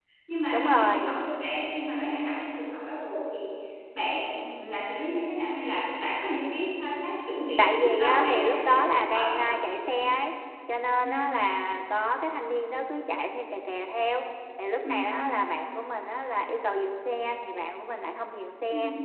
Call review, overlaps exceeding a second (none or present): present